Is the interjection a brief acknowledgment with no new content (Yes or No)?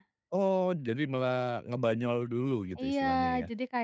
No